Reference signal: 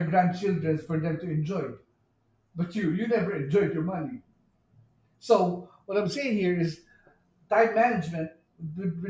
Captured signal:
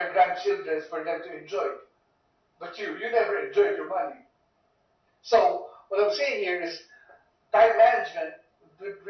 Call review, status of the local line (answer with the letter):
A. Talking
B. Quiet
B